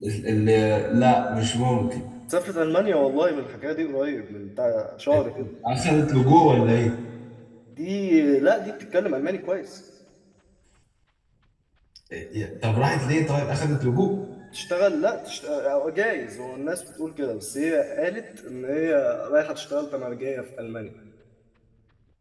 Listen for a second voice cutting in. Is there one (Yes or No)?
No